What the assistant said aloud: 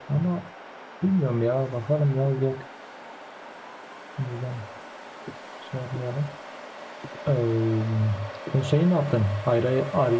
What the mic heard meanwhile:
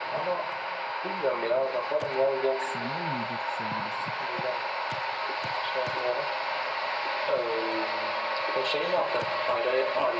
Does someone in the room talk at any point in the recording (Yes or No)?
Yes